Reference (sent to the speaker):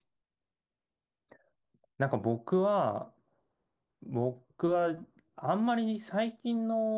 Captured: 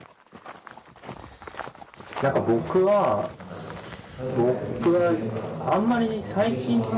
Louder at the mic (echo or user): echo